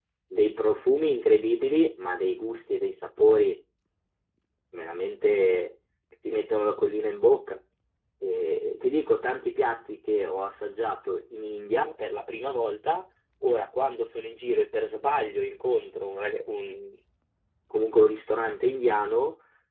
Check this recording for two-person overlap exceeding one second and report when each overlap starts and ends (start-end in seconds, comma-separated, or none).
none